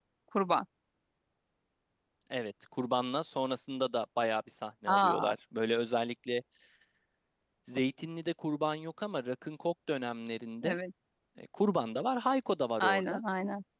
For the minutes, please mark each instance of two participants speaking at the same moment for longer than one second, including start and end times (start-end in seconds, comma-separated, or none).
none